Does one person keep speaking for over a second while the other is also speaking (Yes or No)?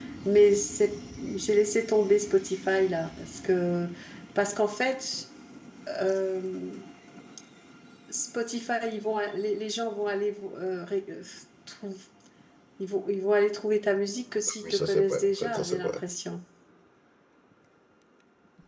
Yes